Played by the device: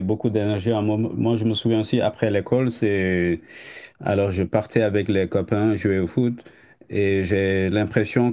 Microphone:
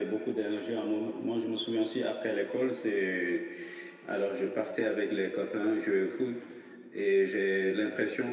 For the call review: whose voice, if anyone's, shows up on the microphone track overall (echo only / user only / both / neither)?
echo only